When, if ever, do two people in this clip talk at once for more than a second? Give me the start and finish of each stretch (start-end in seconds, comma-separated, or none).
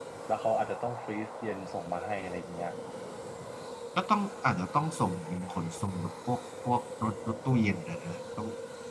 none